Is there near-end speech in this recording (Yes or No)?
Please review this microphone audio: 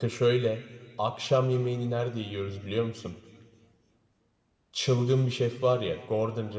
Yes